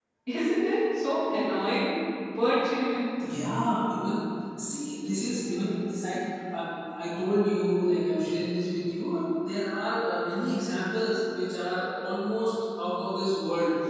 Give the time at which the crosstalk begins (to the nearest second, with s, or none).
none